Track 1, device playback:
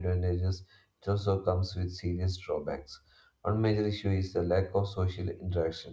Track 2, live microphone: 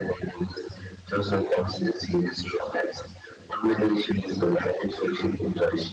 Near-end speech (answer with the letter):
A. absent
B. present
A